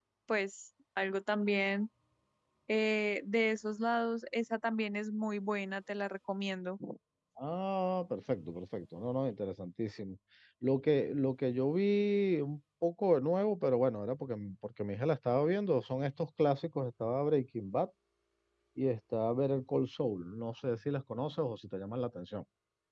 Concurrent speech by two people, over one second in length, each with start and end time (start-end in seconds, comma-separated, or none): none